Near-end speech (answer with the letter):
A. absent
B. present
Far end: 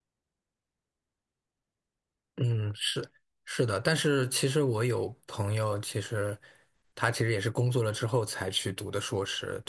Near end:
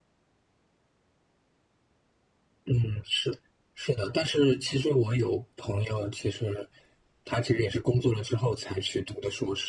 A